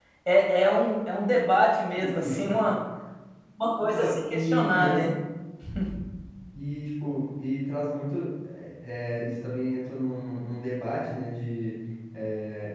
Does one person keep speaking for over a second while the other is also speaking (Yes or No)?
Yes